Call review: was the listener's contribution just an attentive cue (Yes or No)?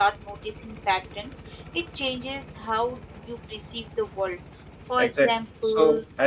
No